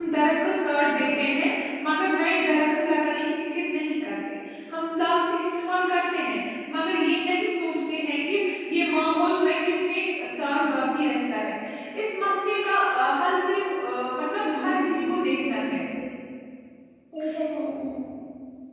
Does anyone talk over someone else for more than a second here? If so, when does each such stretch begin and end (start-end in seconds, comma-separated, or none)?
14.4-15.8